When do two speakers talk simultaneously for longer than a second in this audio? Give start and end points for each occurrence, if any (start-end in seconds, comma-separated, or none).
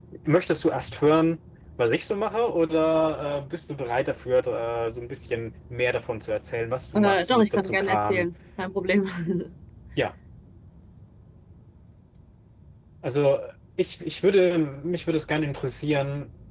6.9-8.3